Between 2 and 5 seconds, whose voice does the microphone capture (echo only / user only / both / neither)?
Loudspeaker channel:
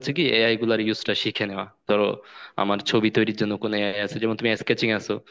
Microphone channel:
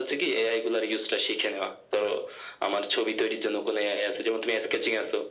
echo only